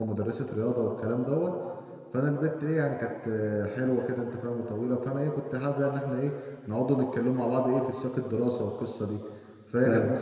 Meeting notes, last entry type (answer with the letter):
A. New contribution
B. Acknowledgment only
B